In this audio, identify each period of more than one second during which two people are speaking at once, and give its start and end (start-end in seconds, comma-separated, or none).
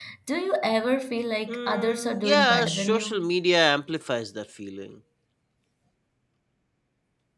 1.5-3.3